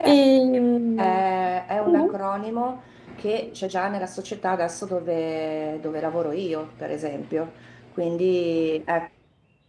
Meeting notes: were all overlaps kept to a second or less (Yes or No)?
Yes